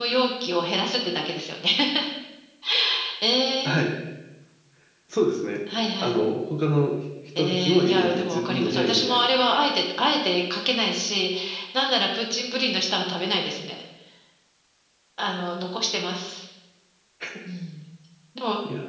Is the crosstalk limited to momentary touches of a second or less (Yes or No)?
No